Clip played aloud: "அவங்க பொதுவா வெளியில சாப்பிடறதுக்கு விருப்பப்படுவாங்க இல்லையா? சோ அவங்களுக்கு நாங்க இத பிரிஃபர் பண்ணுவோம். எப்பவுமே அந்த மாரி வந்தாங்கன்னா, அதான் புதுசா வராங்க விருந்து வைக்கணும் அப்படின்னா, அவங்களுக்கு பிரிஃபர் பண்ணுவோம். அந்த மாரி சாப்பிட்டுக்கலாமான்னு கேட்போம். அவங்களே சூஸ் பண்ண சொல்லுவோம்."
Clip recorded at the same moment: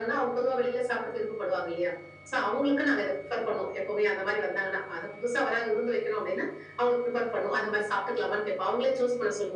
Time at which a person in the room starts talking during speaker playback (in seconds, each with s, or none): none